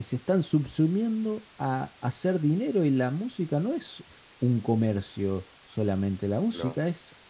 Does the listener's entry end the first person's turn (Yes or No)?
No